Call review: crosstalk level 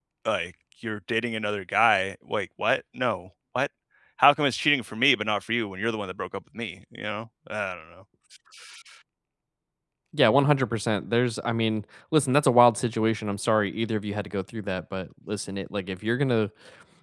none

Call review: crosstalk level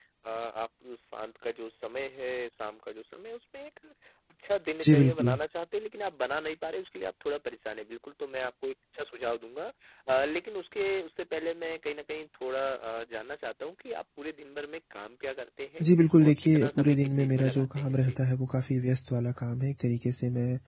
present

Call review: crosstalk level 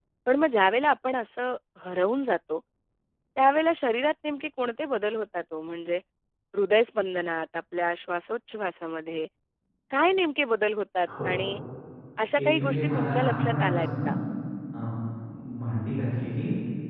present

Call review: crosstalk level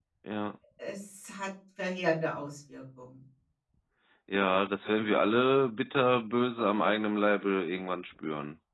none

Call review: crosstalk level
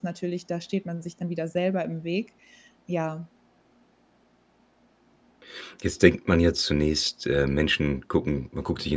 none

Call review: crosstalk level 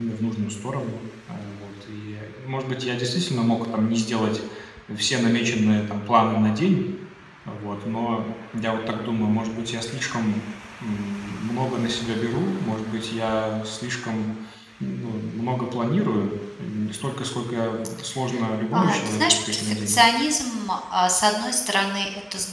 present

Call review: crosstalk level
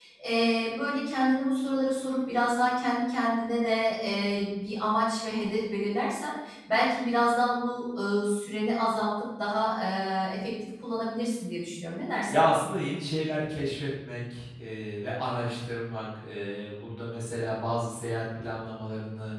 none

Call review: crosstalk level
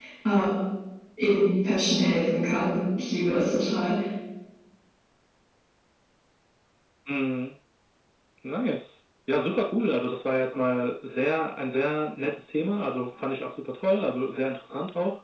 none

